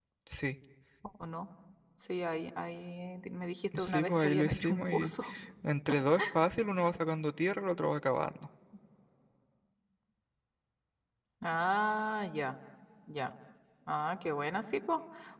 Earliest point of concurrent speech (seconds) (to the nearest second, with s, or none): 4 s